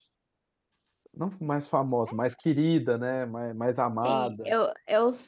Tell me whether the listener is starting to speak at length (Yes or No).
Yes